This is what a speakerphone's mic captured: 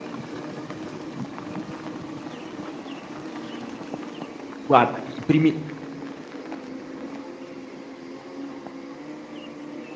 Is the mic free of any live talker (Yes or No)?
No